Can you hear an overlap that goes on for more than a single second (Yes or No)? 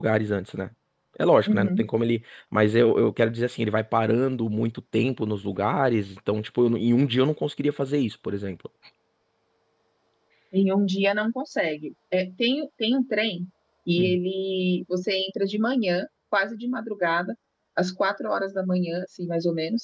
No